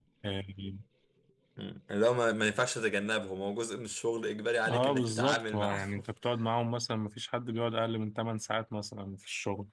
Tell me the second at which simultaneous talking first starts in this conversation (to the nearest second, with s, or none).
5 s